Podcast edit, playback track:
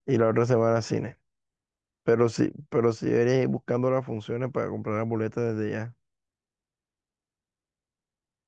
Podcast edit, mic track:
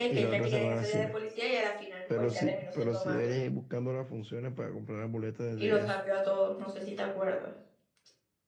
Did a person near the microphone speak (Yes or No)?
Yes